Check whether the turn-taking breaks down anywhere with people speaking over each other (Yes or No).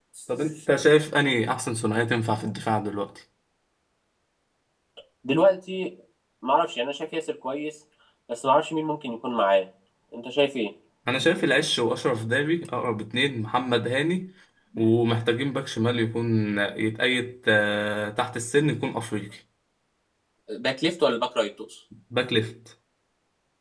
No